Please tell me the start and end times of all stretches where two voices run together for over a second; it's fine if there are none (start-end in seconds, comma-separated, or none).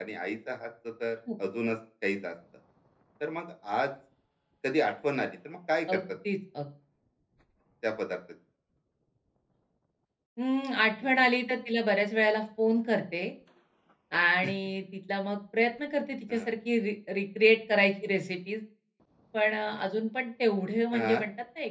none